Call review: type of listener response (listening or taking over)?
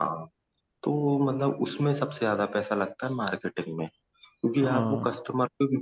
listening